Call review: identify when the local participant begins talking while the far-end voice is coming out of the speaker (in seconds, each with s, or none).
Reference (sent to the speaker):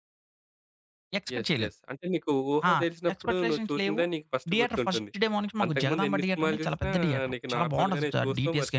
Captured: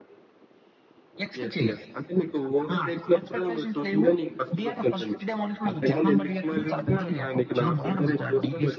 none